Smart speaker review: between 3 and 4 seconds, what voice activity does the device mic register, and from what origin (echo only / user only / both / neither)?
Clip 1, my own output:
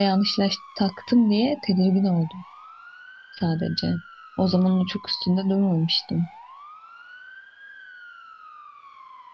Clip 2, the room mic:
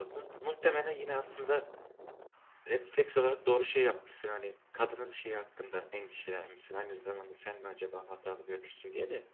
user only